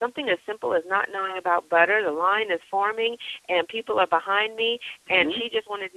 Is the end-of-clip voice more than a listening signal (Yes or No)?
No